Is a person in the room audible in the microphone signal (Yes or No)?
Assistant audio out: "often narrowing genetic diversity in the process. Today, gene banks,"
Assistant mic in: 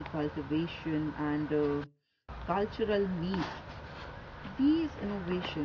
Yes